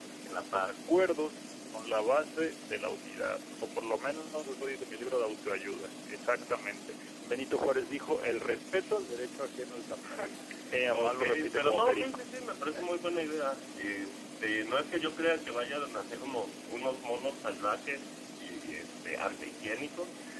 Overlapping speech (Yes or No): Yes